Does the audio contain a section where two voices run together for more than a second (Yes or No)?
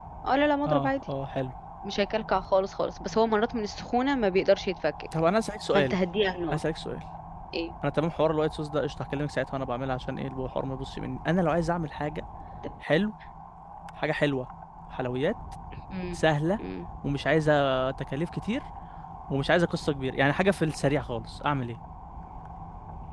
No